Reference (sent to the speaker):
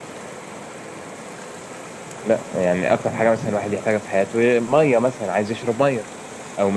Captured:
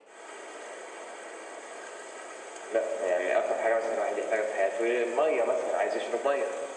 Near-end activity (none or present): none